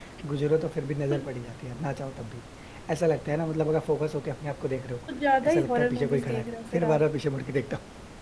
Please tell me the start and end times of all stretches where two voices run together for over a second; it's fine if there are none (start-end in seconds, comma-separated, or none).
5.5-7.0